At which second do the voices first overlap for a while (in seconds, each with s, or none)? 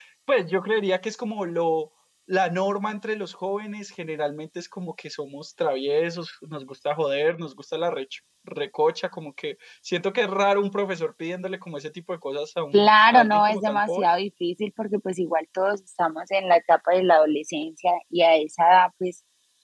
12.7 s